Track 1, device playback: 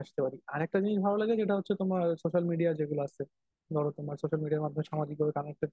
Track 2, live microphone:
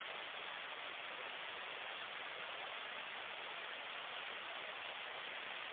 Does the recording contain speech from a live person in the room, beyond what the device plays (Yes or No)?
No